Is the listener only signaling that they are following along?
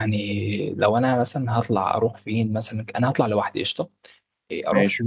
Yes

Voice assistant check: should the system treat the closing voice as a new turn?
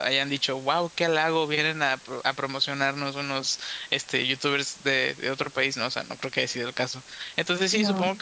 No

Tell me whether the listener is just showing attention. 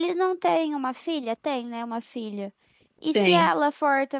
Yes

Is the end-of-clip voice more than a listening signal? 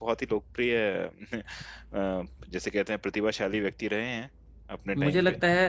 Yes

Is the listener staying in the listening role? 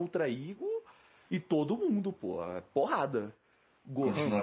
No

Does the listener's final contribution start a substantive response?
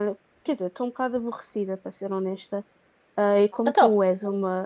No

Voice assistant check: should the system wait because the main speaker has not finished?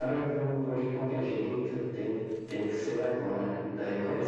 Yes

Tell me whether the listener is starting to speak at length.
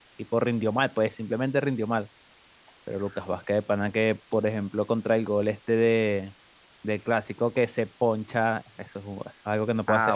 Yes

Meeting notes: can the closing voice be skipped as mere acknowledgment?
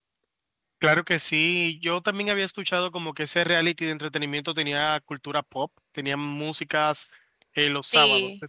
No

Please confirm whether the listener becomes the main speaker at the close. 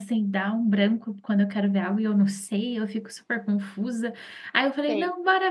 No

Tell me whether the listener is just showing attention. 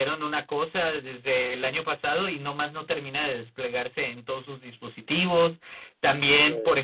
Yes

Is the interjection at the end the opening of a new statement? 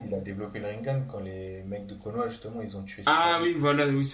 Yes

